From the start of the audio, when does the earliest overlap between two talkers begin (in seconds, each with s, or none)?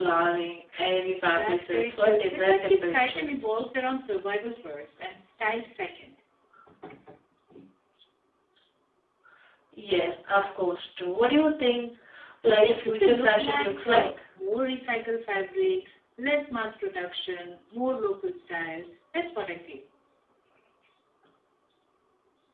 1.4 s